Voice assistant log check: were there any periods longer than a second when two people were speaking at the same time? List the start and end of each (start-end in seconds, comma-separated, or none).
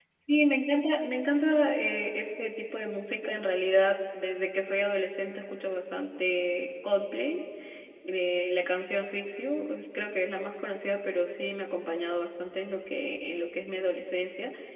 none